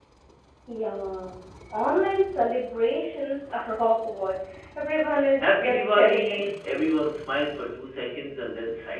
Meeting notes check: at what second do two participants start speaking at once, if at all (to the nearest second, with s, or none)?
5 s